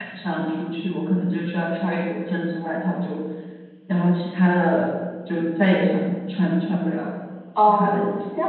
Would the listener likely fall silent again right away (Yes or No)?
No